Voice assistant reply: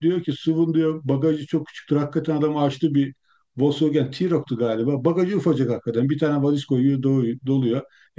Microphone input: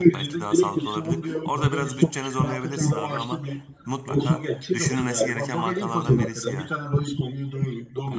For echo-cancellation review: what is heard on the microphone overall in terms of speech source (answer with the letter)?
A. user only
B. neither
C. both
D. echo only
C